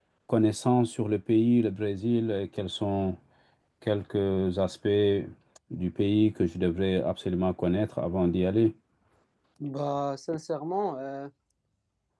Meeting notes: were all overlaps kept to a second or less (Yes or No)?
Yes